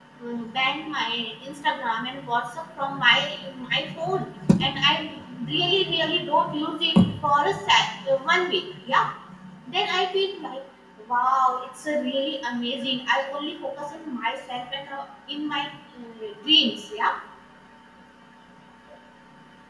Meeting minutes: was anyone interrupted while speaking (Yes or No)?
No